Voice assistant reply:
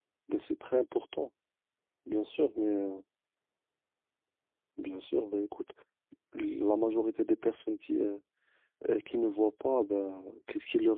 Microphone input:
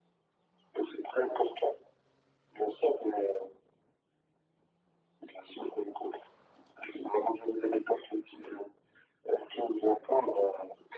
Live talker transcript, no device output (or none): none